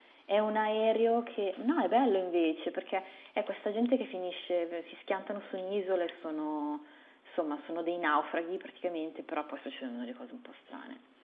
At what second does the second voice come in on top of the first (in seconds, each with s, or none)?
none